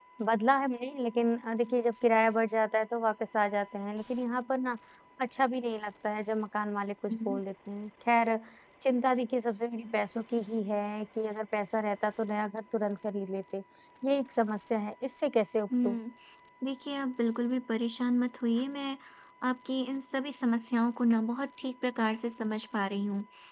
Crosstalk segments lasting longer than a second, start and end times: none

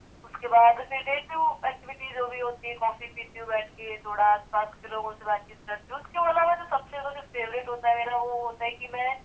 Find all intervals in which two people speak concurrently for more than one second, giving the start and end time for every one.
none

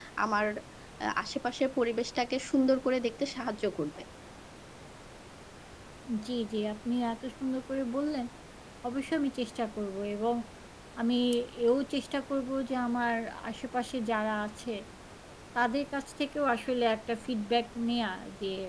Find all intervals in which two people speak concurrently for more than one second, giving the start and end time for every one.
none

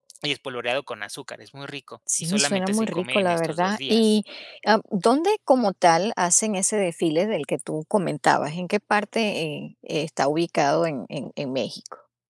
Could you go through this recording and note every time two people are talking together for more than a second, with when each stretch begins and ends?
2.2-4.2

